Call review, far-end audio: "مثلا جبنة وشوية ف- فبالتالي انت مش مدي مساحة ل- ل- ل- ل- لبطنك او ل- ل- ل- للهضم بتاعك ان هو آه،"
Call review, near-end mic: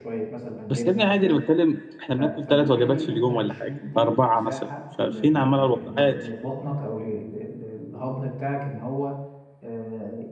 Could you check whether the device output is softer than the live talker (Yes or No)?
Yes